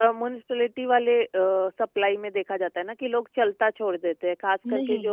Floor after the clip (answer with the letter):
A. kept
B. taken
B